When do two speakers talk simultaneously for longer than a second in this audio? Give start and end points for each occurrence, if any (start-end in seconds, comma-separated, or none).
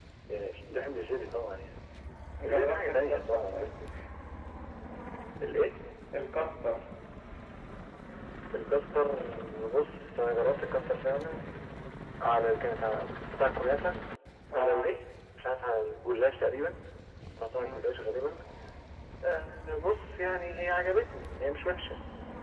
2.4-3.7